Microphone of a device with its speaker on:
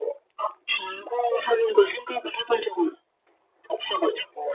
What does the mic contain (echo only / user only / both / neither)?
echo only